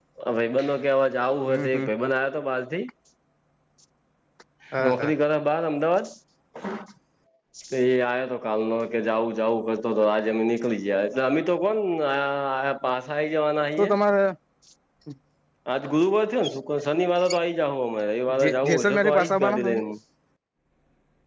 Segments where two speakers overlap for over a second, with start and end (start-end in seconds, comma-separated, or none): 18.4-19.8